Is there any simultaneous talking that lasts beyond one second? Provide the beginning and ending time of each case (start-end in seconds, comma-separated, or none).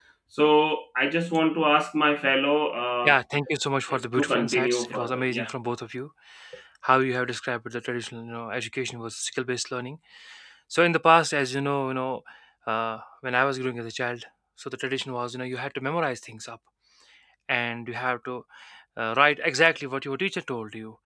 4.2-5.5